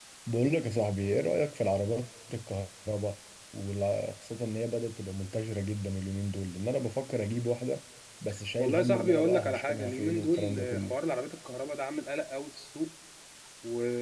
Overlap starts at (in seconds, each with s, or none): 8.6 s